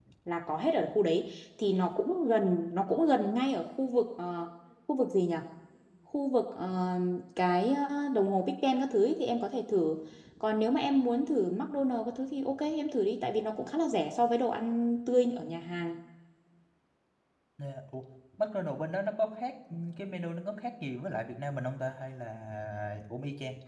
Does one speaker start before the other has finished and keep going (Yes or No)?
No